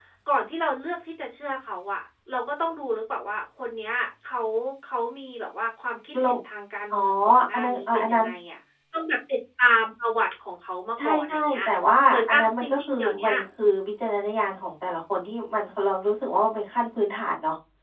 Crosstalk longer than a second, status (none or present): present